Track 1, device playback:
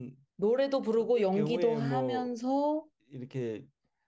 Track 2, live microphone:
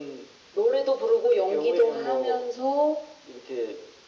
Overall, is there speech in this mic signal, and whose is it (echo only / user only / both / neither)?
echo only